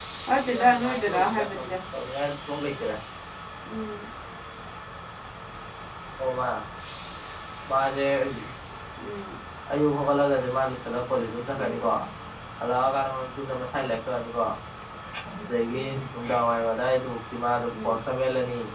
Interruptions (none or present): present